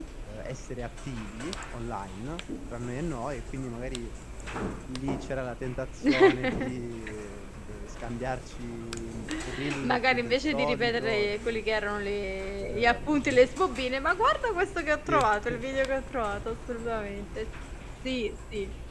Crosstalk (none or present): present